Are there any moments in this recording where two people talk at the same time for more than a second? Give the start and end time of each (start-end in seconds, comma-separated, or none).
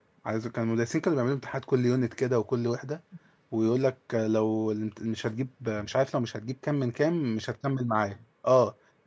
none